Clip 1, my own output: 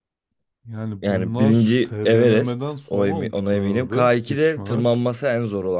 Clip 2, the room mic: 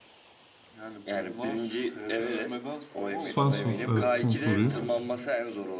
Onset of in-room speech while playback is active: 2.2 s

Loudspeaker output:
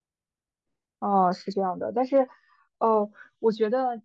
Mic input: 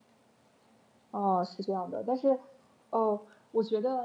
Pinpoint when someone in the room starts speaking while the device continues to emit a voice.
none

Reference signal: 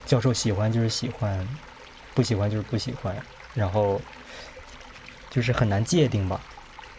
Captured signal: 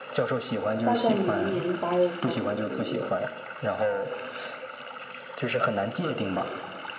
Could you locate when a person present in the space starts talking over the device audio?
0.8 s

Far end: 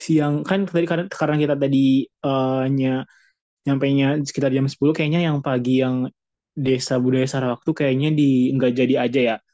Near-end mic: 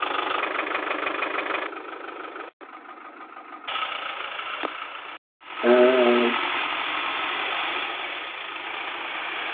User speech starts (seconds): 5.6 s

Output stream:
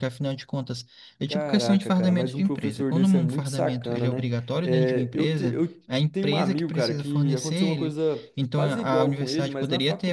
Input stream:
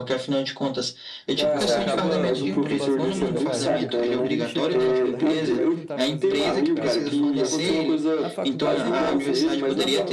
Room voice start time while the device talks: 1.4 s

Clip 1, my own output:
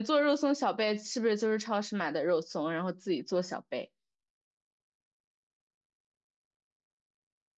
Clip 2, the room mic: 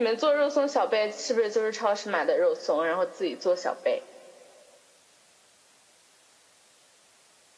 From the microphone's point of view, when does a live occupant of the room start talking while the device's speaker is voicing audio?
none

